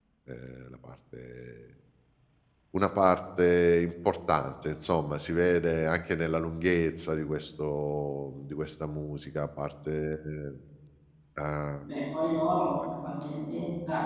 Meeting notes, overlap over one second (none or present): none